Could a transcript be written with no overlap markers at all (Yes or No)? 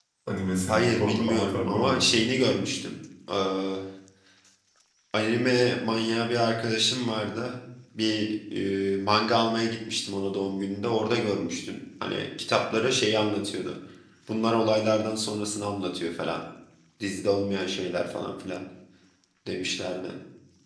No